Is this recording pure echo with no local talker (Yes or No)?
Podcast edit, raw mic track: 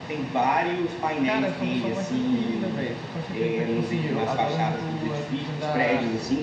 Yes